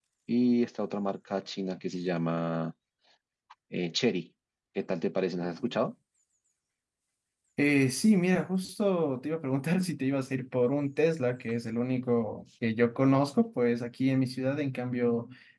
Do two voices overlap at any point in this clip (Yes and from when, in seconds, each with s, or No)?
No